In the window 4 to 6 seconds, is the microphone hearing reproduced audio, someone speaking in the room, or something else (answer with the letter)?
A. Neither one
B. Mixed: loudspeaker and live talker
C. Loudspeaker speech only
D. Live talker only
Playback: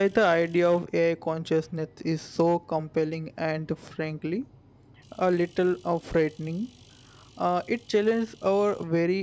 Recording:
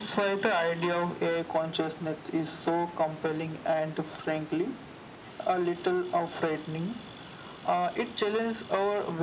C